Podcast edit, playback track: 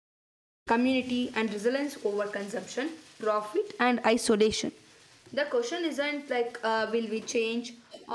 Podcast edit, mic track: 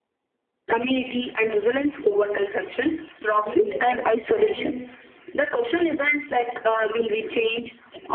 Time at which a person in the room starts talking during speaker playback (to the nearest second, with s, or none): 3 s